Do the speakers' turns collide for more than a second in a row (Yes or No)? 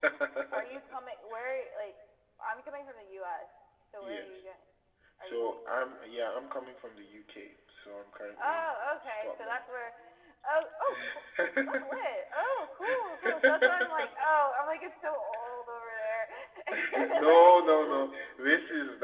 Yes